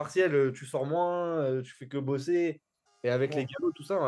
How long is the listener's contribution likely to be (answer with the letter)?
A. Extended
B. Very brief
B